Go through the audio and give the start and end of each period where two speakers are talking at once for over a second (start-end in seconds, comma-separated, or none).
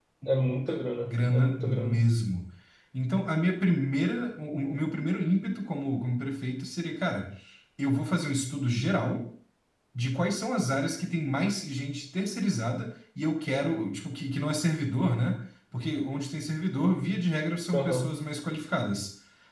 0.7-2.0